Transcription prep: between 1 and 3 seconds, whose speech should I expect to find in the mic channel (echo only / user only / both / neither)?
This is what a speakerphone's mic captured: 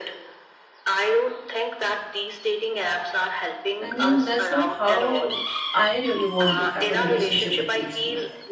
echo only